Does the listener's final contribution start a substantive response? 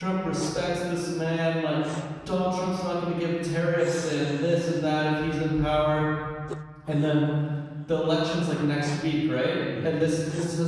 No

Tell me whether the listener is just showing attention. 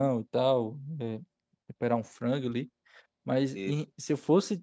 Yes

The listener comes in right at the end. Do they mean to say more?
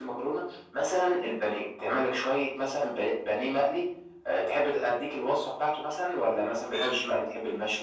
No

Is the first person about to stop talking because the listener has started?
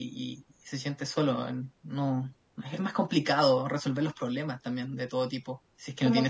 Yes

